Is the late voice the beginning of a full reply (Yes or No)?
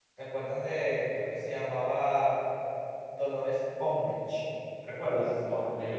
Yes